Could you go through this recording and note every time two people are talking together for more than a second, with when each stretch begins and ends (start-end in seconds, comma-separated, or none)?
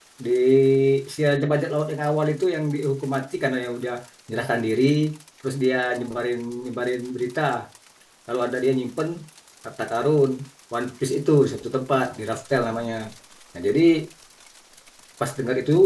none